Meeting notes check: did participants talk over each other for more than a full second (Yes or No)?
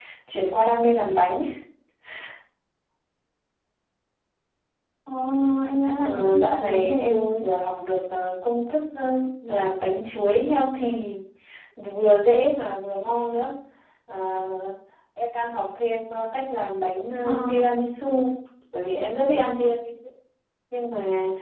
Yes